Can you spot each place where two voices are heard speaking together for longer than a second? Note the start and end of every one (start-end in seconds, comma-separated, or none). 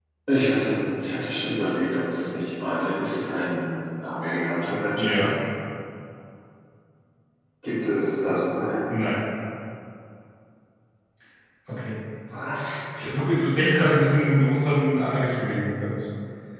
none